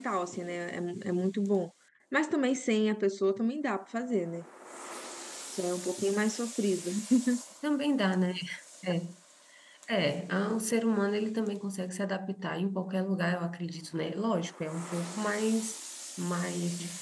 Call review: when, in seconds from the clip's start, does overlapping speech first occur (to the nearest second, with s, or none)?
none